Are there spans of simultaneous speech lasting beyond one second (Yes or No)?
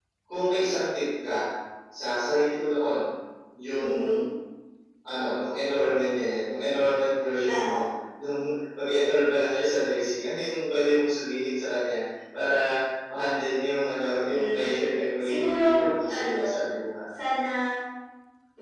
Yes